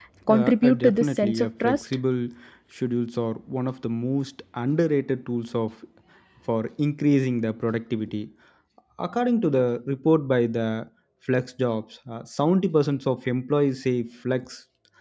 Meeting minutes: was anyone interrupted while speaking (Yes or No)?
Yes